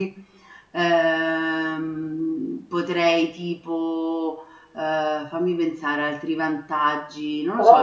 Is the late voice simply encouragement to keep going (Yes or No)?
No